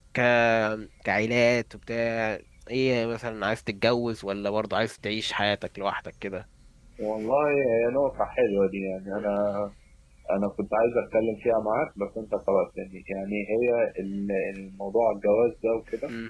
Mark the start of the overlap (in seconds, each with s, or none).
none